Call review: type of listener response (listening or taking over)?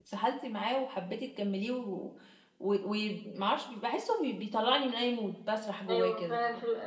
taking over